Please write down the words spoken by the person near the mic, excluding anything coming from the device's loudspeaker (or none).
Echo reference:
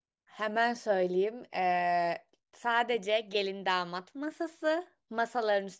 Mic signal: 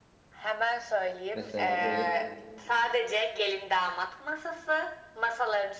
Mesela böyle